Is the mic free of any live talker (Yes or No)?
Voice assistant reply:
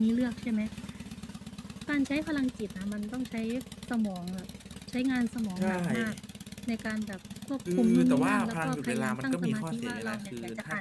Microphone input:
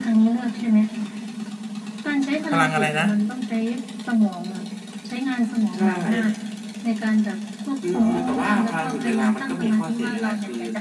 No